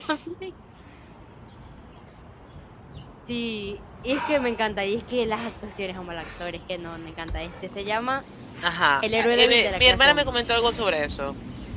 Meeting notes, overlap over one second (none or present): present